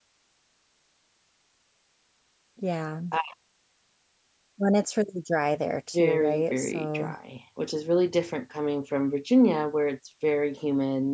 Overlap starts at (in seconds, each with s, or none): 5.9 s